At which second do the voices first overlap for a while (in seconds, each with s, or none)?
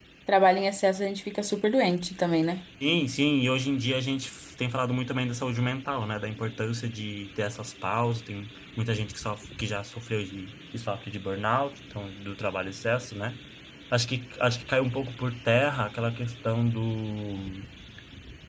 none